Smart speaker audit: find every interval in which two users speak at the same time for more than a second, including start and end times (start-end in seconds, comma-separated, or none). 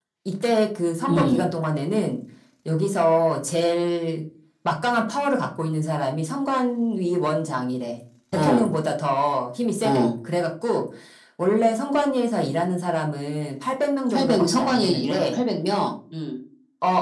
14.1-15.4